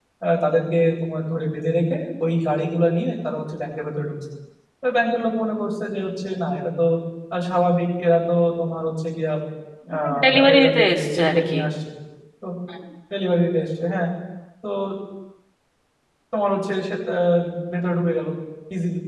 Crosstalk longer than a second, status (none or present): present